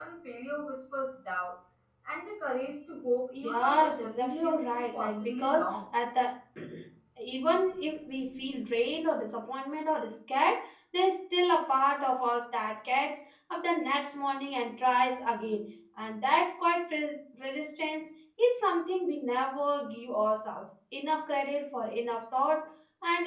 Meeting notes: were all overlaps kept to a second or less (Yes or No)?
No